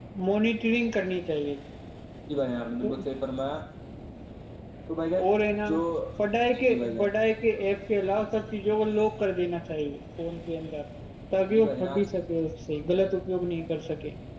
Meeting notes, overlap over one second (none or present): none